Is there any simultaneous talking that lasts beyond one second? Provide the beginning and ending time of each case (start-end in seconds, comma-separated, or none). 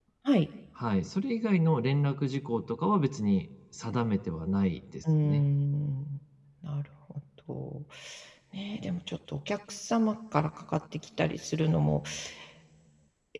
none